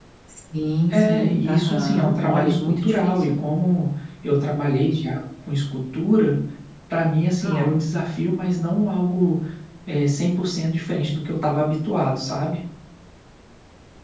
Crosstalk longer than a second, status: present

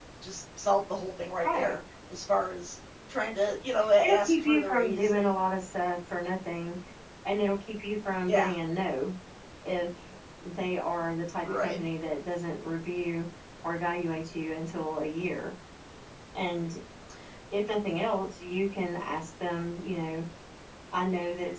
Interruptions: present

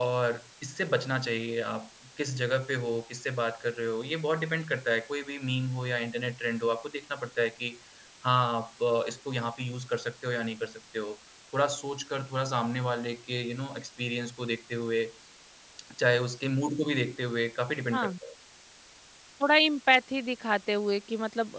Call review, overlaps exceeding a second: none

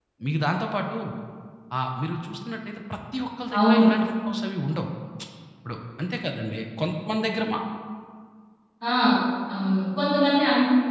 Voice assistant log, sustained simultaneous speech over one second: none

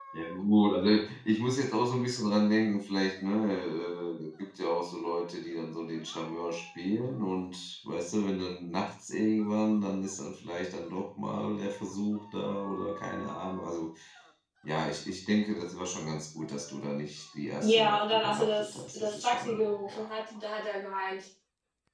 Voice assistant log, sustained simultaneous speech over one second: present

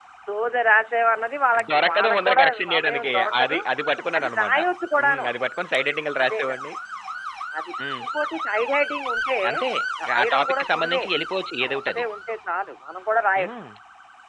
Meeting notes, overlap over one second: present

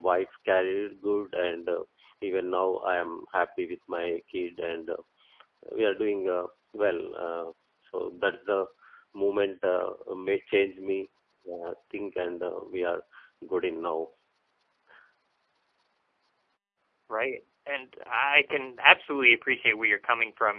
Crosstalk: none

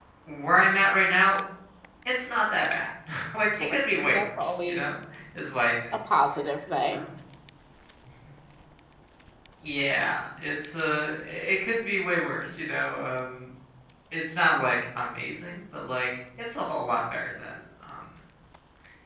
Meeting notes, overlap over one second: present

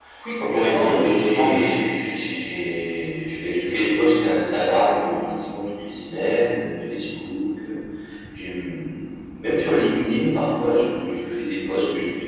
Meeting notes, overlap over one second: present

